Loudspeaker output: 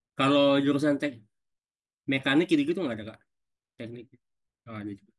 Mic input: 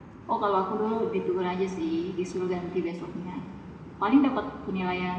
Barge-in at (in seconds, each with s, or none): 0.3 s